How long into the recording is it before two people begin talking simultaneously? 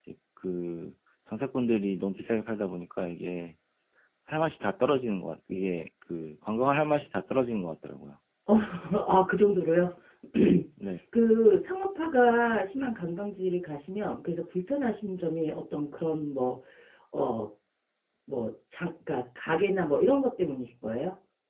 none

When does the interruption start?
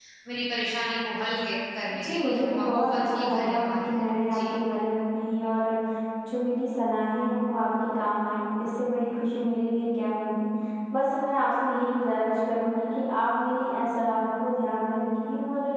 1.9 s

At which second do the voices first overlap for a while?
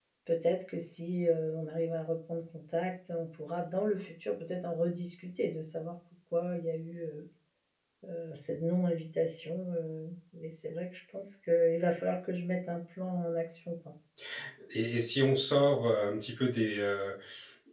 none

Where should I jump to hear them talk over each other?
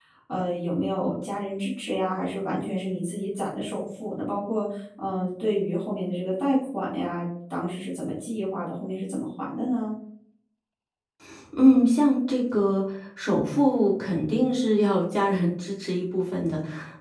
none

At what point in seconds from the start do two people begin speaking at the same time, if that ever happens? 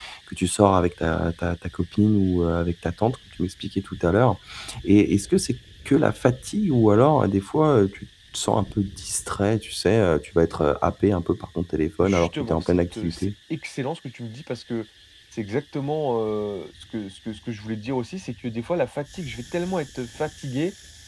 12.0 s

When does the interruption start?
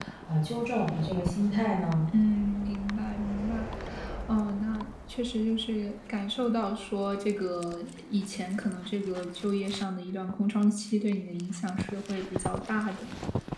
none

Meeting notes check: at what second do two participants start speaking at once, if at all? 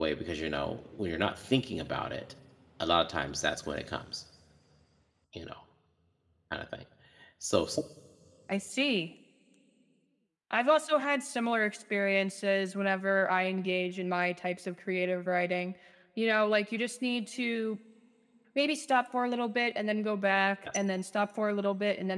none

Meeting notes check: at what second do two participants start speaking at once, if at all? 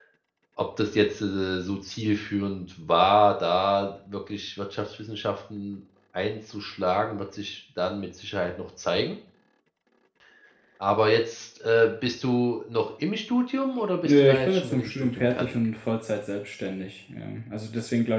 14.0 s

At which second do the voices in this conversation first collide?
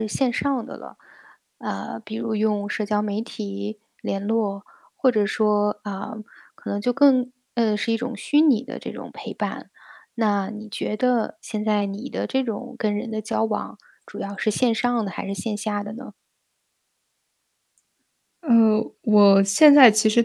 none

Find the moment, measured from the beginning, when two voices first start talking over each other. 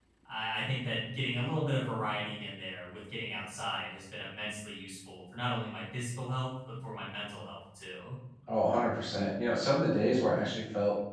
none

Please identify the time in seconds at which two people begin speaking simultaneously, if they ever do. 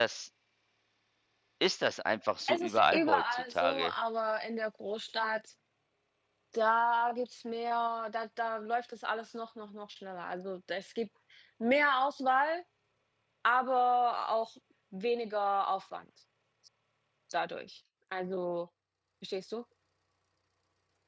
2.5 s

